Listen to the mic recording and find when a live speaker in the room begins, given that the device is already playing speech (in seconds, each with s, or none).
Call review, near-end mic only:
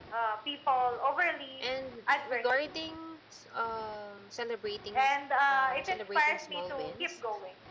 1.6 s